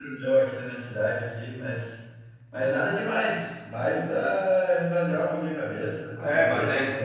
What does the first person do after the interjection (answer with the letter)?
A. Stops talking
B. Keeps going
A